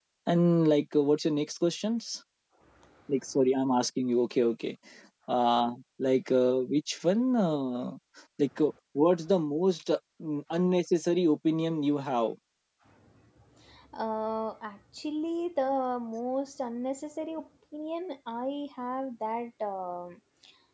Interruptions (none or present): none